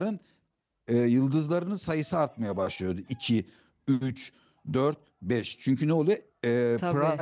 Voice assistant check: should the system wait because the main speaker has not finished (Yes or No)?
Yes